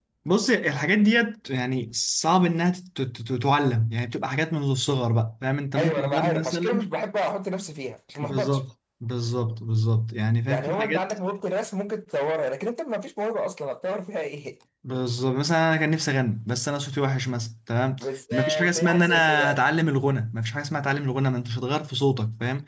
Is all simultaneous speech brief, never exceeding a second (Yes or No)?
No